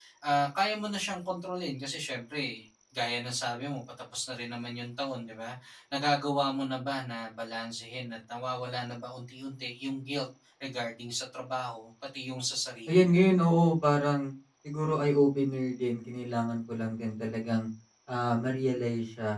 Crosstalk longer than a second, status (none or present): none